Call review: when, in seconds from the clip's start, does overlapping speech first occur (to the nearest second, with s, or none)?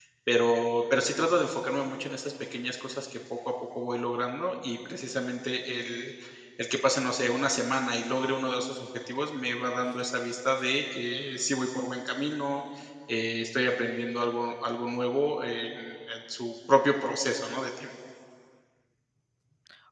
none